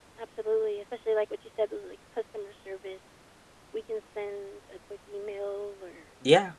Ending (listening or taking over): listening